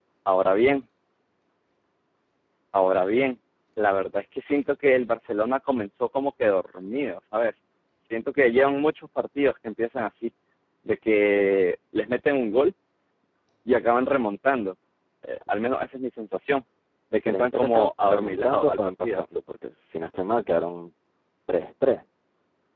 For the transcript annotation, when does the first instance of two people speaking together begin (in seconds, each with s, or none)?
17.3 s